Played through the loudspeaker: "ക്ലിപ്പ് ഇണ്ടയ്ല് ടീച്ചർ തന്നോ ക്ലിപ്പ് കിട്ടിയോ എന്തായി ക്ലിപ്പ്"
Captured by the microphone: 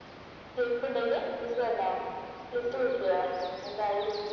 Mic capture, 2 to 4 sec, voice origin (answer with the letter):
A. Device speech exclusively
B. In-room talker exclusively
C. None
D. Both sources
A